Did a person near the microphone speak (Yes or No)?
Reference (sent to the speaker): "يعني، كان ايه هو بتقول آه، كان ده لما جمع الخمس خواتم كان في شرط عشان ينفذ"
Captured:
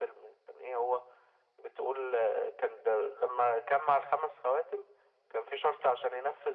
No